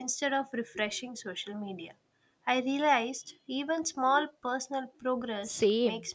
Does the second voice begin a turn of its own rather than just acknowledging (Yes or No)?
Yes